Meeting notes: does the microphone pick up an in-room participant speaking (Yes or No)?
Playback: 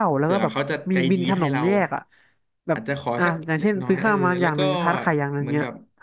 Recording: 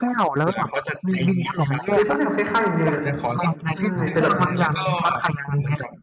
Yes